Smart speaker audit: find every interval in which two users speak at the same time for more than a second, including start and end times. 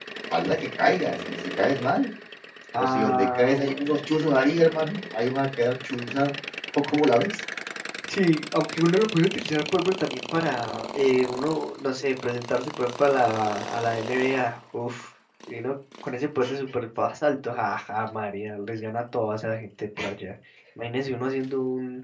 2.8-4.0

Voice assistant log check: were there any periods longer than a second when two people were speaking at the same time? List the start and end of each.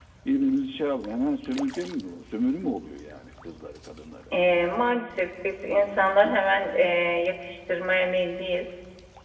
none

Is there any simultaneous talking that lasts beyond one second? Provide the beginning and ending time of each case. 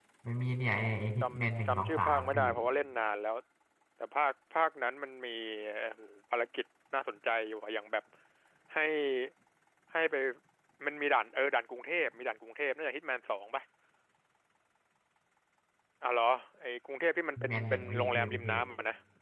0.8-2.4, 17.4-18.6

